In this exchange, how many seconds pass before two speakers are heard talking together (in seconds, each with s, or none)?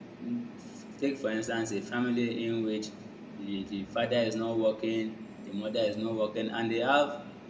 none